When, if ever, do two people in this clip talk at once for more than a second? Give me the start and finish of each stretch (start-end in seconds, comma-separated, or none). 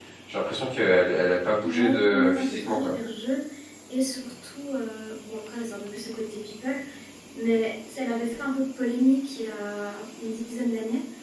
1.6-2.9